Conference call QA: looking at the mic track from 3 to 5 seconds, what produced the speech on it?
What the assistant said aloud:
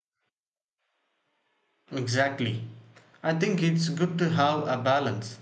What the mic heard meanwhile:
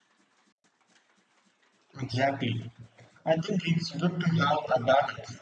echo only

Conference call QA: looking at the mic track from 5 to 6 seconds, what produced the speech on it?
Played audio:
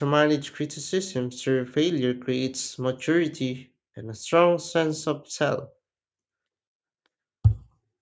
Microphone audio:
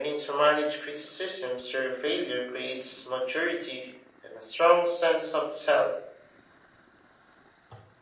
echo only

